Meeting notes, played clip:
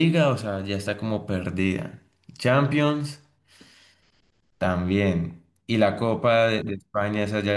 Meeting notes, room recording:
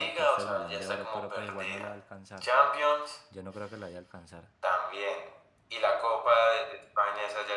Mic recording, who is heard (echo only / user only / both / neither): both